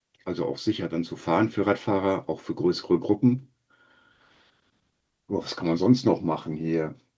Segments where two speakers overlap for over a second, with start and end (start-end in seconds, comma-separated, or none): none